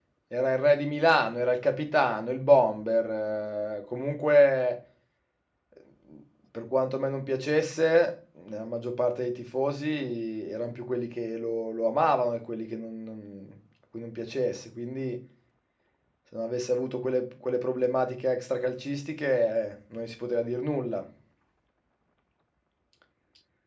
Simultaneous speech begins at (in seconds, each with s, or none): none